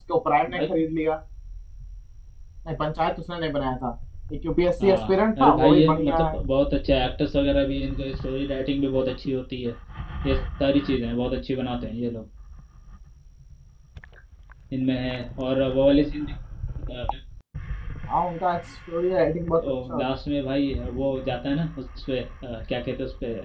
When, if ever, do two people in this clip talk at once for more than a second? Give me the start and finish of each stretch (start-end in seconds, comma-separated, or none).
4.8-6.4